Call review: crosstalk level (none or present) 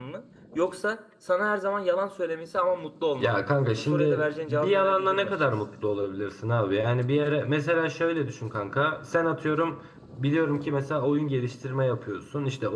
present